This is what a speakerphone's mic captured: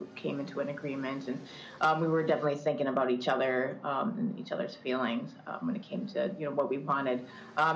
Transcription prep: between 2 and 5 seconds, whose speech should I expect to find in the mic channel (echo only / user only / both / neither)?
echo only